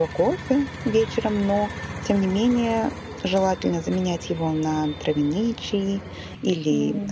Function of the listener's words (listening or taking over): listening